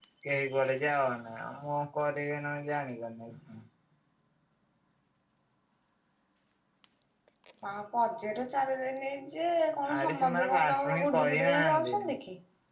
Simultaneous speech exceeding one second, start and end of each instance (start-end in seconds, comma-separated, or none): 10.0-11.9